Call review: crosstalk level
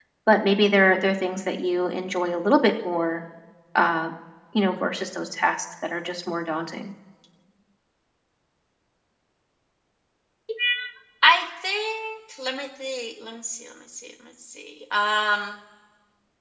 none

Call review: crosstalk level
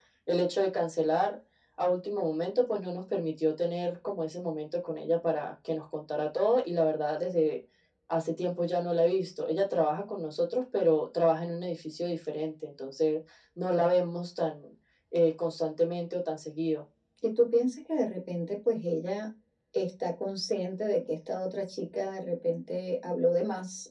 none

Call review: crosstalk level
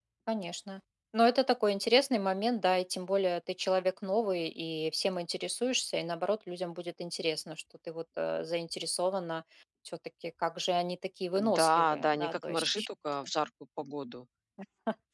present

